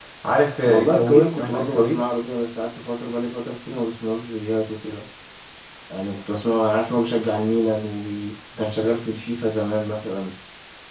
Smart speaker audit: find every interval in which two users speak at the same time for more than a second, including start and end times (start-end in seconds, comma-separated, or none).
0.6-2.0